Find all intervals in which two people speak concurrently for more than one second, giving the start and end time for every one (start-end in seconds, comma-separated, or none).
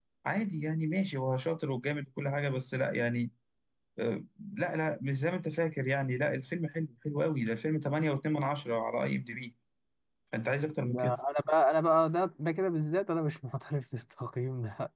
none